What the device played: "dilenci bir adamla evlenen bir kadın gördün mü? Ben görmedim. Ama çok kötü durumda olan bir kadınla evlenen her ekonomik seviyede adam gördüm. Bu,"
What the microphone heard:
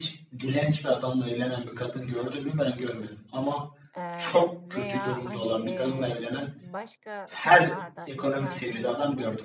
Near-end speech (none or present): present